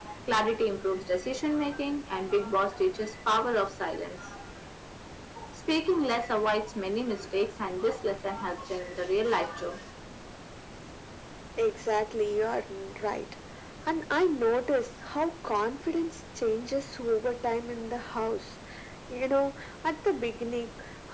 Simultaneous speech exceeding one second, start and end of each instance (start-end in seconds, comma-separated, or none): none